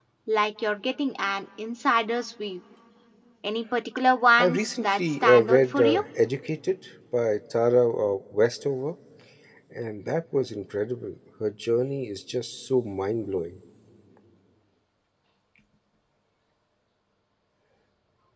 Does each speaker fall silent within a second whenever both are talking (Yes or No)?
No